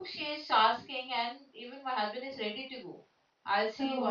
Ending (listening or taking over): listening